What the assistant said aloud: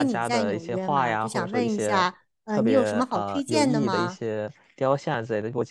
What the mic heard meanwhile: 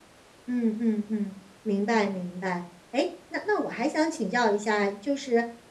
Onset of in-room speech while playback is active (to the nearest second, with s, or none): 0 s